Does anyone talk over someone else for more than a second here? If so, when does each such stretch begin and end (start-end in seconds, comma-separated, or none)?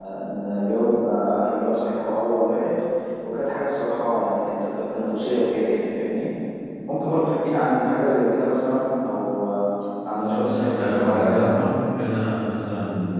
10.1-11.6